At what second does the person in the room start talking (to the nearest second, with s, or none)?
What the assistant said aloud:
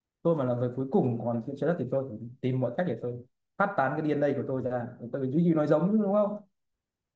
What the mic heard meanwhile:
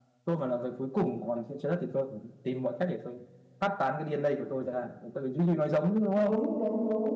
6 s